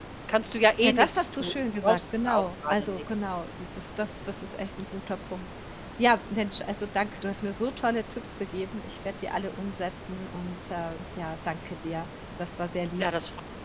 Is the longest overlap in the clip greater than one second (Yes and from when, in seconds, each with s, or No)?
Yes, from 0.8 s